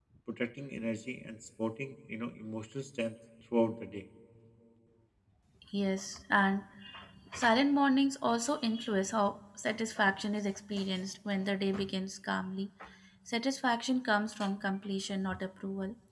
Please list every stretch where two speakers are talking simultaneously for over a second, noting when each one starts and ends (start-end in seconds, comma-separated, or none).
none